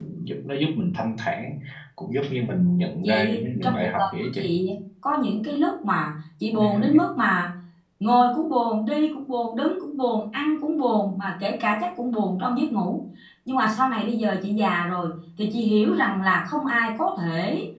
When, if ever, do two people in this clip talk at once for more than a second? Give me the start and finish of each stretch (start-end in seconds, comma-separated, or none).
3.0-4.4